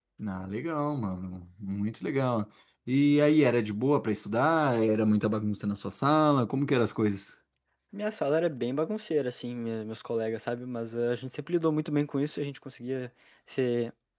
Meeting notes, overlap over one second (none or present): none